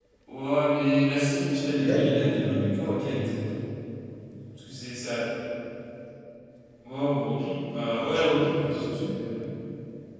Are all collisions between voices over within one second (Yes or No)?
No